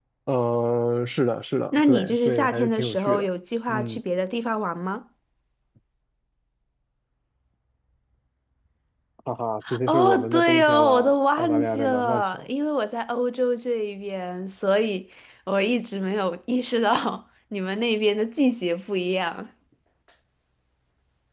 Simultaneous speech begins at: 2 s

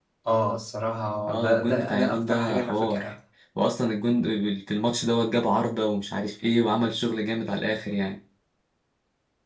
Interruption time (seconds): 1 s

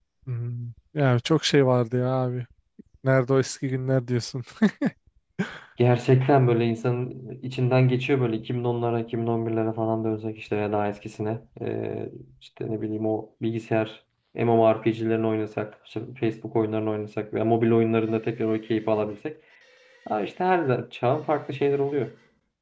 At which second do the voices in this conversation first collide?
none

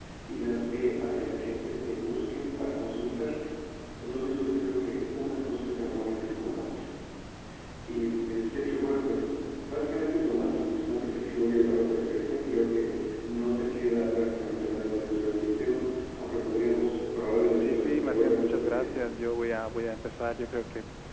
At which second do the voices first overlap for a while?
18 s

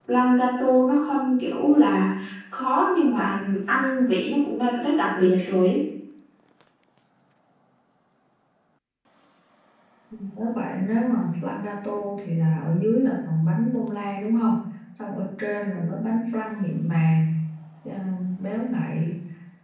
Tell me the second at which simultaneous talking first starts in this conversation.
none

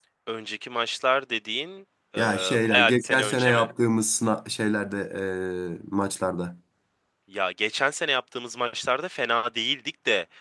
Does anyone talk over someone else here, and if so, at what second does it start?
2 s

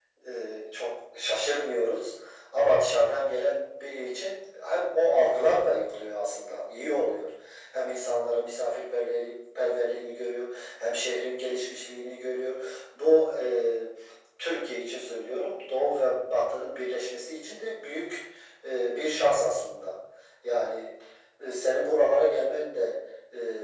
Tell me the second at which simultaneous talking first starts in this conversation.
none

